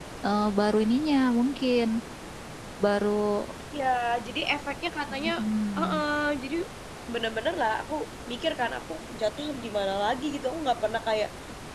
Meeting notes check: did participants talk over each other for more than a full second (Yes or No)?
No